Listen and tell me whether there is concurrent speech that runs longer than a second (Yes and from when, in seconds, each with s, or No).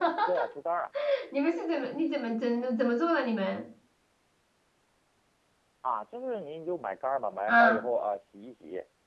No